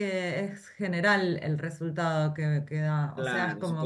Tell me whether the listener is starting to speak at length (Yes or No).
Yes